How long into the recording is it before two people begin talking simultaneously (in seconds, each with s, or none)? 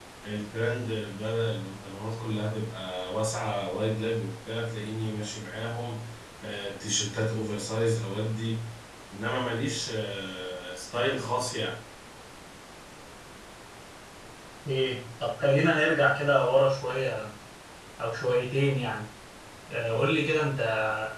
none